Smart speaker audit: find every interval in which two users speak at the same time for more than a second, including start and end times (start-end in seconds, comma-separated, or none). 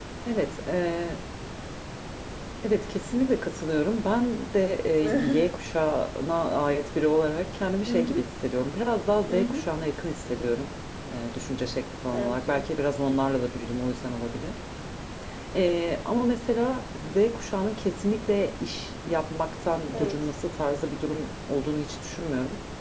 none